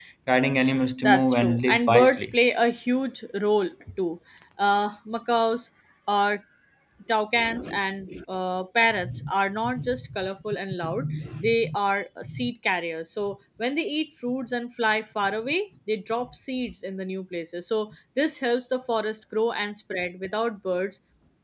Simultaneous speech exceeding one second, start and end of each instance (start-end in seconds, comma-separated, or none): 1.0-2.3